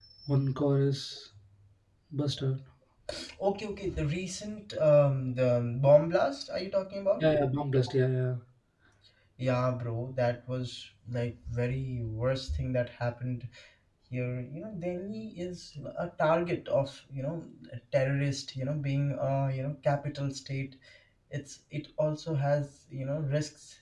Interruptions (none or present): none